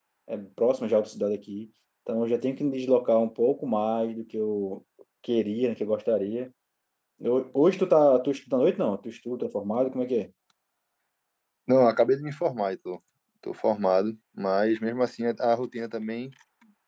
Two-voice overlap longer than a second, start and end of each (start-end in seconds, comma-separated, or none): none